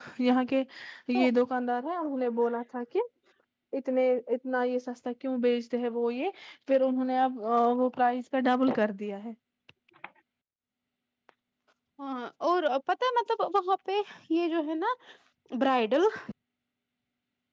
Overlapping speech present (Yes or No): No